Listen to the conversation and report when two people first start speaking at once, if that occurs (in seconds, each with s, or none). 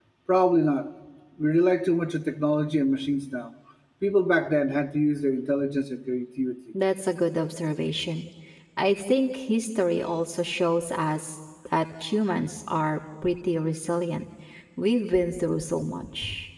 none